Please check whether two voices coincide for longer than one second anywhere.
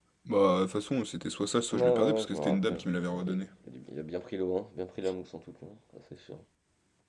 Yes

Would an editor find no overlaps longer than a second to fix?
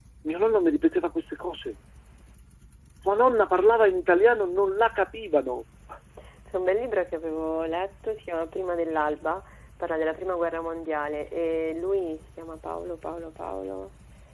Yes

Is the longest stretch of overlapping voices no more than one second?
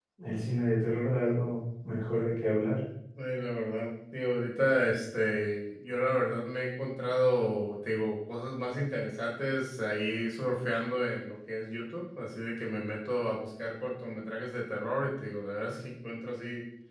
Yes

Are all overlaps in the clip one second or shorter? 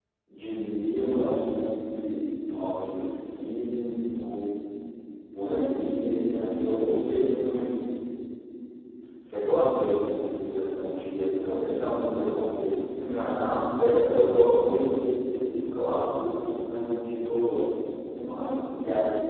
No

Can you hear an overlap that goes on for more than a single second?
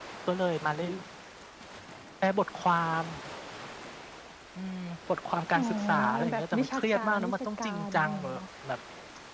Yes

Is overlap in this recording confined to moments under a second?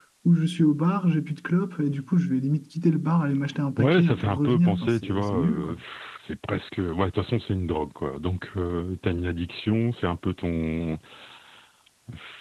No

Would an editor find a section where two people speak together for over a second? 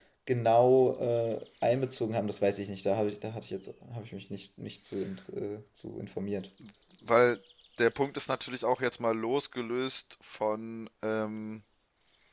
No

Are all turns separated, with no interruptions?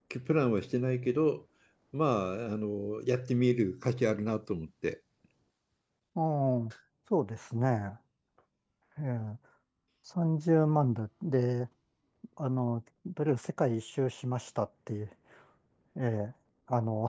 Yes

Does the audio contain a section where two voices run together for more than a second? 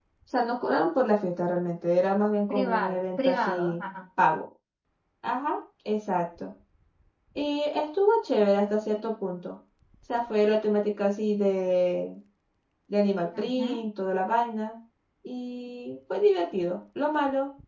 Yes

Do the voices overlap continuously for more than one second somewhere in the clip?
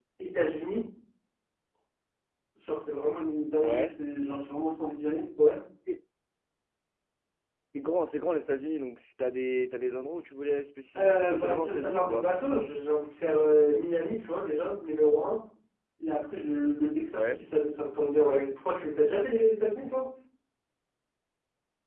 Yes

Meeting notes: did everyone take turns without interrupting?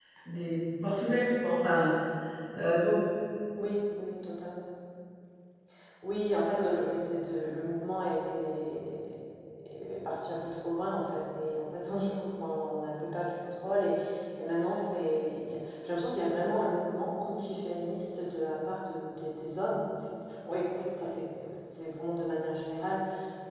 Yes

